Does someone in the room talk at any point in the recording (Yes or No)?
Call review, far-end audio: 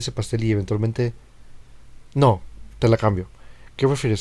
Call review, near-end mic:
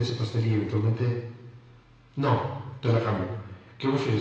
No